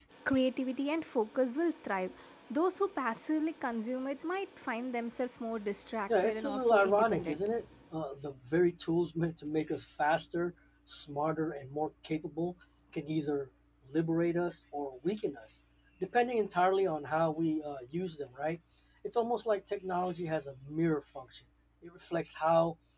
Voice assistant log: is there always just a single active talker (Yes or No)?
No